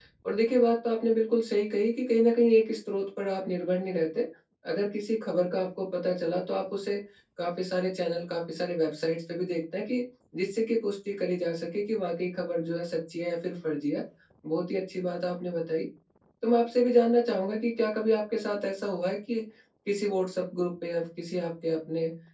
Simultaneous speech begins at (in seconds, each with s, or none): none